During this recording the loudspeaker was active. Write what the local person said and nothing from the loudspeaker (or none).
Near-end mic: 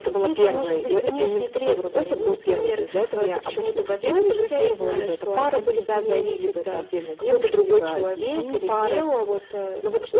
none